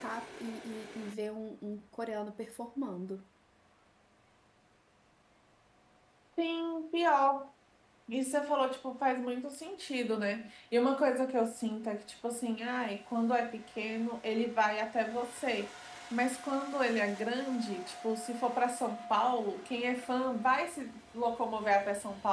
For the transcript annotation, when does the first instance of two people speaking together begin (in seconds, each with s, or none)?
none